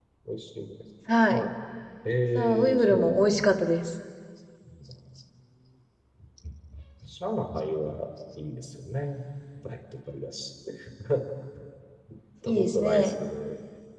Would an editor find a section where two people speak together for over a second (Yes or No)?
Yes